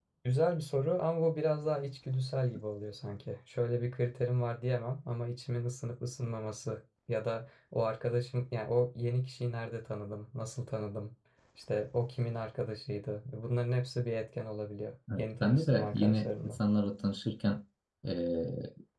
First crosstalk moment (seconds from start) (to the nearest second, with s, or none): 15 s